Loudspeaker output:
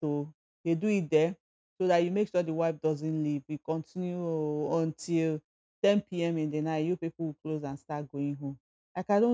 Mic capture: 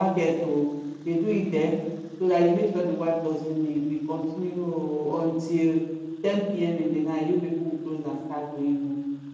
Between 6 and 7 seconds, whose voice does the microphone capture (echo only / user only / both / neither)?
echo only